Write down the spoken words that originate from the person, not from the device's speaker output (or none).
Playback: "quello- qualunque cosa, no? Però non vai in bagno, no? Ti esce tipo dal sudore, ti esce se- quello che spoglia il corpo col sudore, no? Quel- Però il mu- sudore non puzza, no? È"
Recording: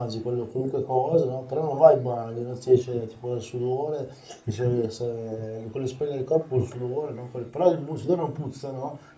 none